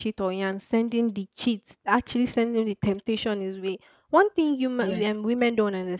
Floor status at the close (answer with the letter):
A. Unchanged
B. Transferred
A